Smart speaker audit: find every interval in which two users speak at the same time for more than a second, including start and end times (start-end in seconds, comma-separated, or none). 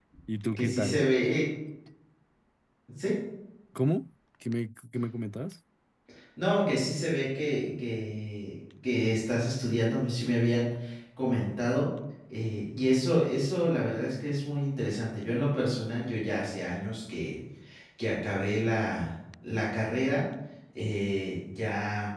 none